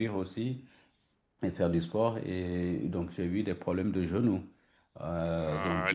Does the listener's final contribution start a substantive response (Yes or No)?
Yes